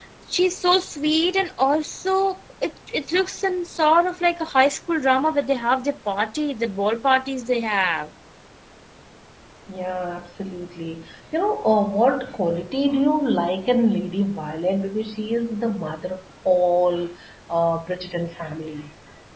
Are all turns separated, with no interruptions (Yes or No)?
Yes